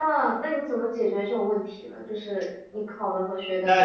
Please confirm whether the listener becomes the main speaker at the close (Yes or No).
Yes